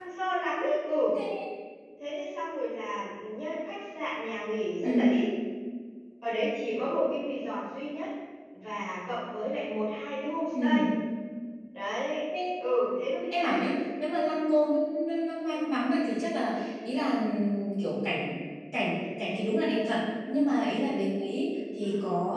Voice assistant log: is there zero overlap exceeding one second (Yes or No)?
Yes